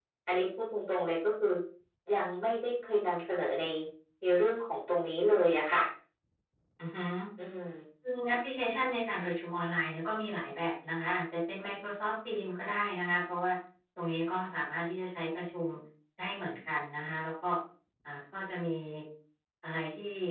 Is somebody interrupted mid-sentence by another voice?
No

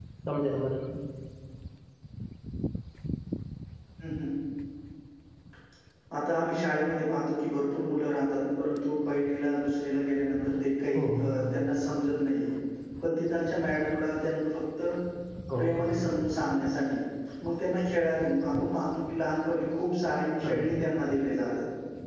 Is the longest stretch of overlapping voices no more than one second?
Yes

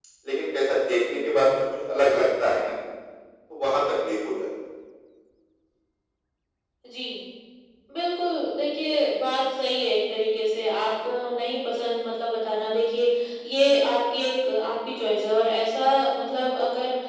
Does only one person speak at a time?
Yes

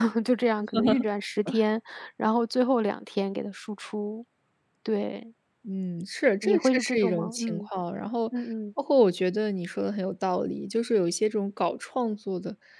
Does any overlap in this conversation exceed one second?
Yes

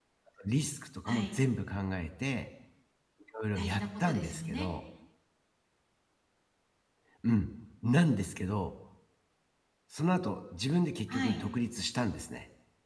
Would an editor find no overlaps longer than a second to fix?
No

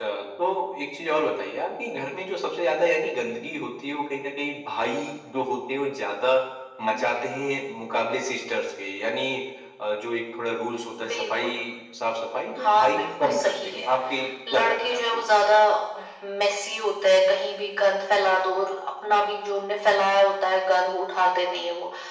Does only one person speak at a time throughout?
No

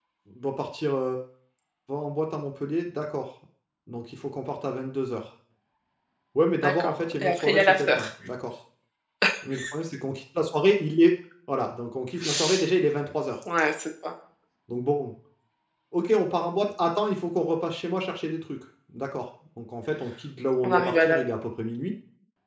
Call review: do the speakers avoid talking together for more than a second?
No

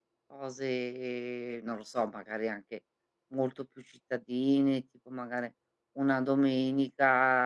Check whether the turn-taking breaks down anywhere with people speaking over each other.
No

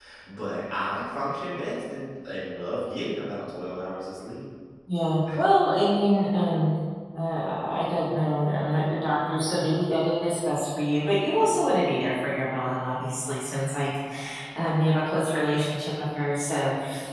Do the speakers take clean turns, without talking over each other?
Yes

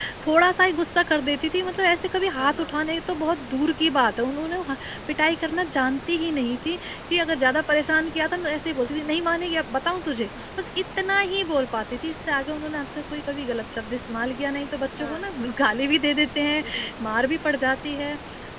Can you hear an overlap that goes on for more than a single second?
No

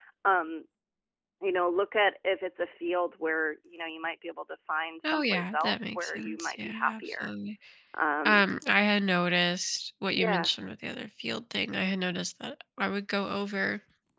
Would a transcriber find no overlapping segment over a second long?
No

